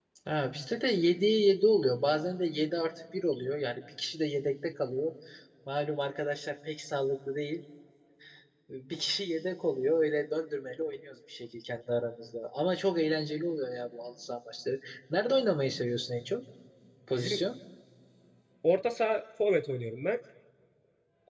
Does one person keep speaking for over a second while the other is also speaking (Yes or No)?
No